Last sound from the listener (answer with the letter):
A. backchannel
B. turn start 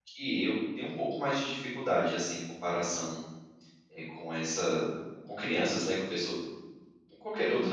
B